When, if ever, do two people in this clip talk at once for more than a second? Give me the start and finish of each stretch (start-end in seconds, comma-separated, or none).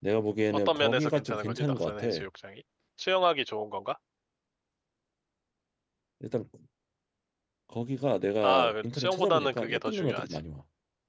0.7-2.2, 8.4-10.4